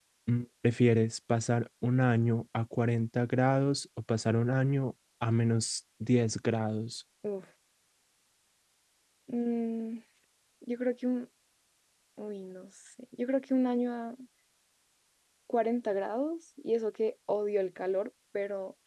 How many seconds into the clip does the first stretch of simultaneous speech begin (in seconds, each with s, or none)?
none